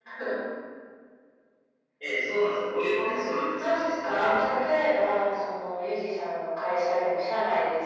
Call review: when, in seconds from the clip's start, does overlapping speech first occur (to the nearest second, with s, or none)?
3 s